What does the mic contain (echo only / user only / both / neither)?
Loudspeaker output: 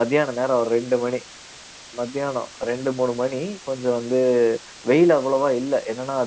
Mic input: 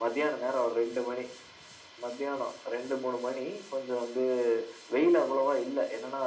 echo only